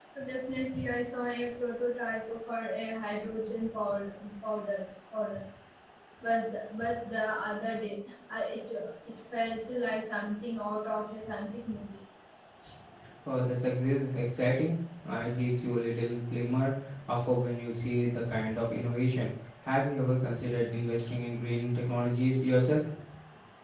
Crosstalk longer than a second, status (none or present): none